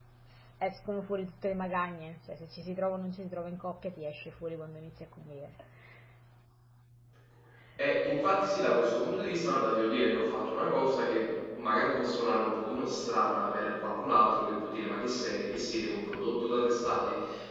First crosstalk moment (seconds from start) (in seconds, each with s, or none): none